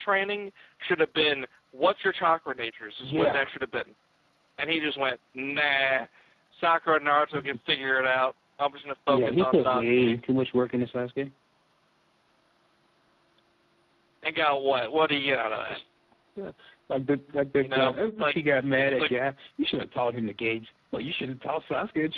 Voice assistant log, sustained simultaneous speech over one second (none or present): present